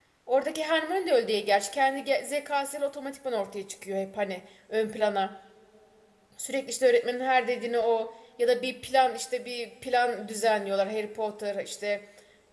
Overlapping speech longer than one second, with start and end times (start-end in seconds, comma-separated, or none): none